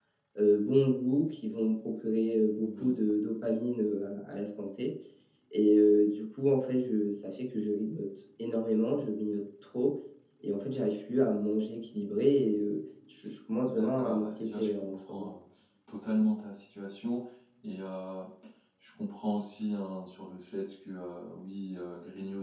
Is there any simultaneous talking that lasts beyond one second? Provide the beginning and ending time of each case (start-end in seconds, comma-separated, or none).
13.6-15.3